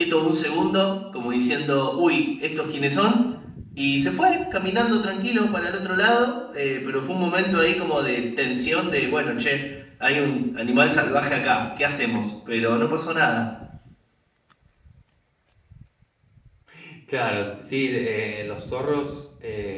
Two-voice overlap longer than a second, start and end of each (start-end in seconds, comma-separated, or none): none